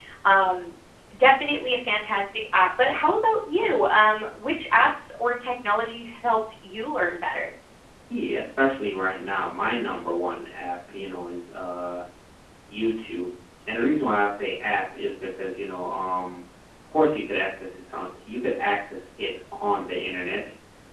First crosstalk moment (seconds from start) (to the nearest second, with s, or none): none